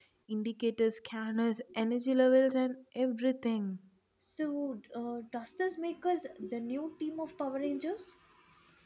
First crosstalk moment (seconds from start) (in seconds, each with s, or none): none